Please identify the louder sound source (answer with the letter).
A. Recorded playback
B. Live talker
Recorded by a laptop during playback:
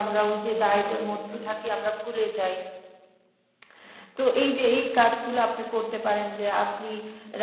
A